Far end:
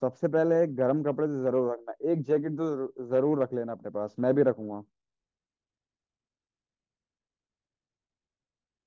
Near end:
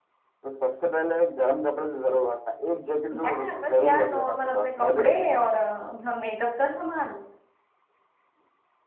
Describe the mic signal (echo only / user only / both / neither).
both